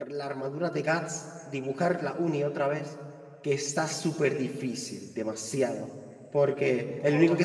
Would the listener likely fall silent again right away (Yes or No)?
Yes